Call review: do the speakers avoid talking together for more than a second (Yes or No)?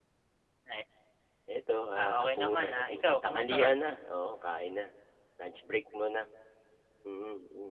No